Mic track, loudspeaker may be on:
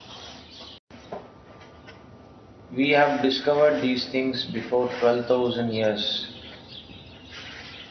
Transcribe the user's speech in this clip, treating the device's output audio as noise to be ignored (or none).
we have discovered these things before 12,000 years.